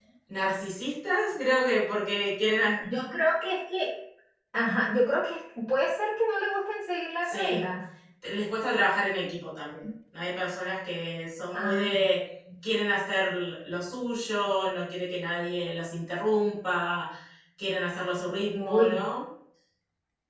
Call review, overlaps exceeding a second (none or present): none